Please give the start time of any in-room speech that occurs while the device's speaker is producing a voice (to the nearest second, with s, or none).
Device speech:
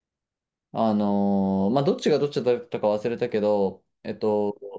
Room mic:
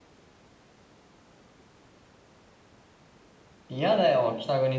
4 s